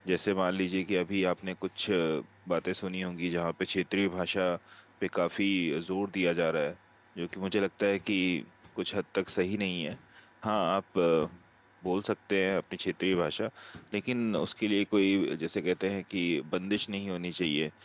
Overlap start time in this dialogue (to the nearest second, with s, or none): none